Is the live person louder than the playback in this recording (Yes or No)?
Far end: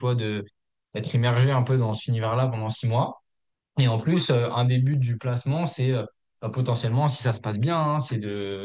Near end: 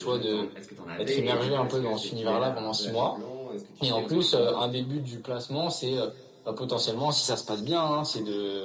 No